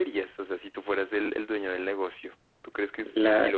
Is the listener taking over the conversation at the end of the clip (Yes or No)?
No